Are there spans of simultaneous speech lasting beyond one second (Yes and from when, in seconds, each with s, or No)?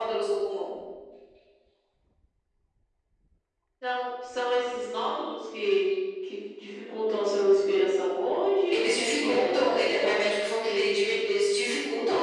Yes, from 8.7 s